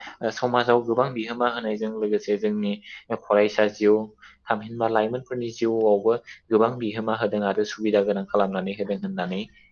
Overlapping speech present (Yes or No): No